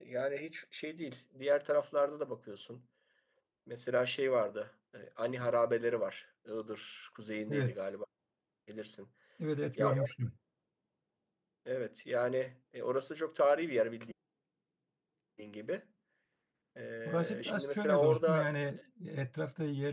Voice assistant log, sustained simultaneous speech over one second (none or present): present